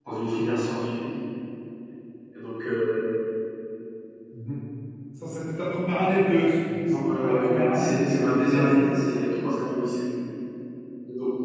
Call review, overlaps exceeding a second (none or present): present